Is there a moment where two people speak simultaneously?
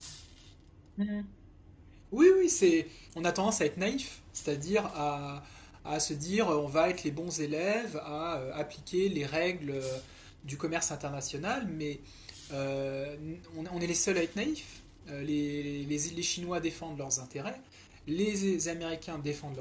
No

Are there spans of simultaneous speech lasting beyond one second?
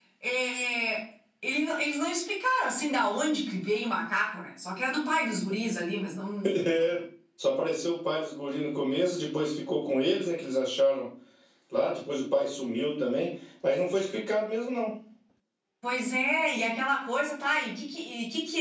No

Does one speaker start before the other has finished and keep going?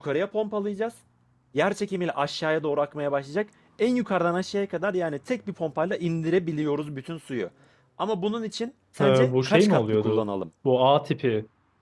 Yes, from 9.0 s

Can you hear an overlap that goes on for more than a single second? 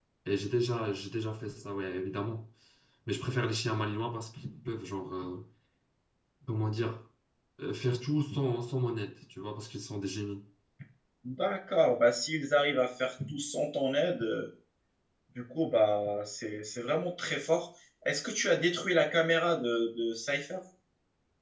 No

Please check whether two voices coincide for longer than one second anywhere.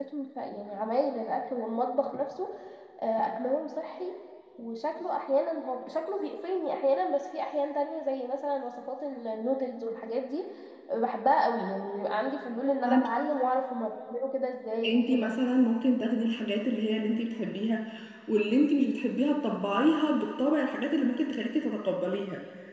No

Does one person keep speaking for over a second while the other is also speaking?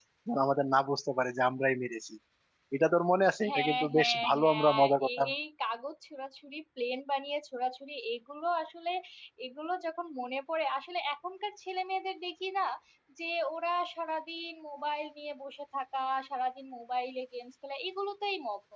Yes, from 3.5 s

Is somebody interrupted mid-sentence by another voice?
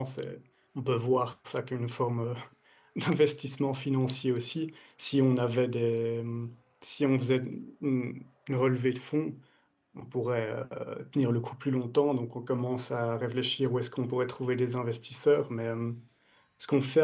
No

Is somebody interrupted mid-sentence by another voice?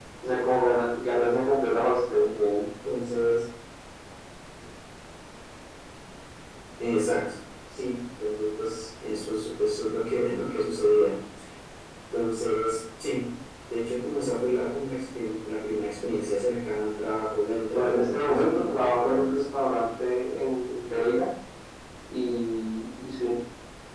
Yes, from 17.7 s

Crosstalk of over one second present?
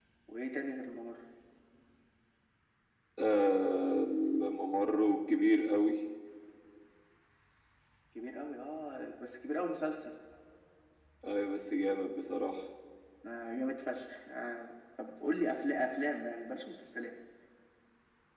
No

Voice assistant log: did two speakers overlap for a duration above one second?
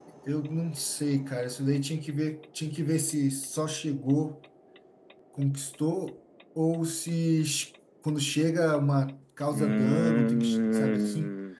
Yes, from 9.5 s

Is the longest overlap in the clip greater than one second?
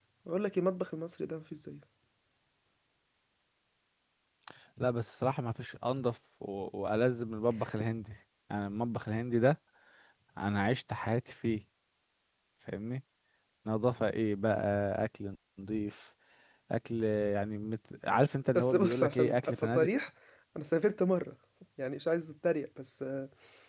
Yes, from 18.6 s

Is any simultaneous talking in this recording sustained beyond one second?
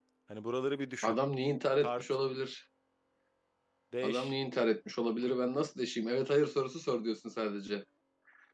No

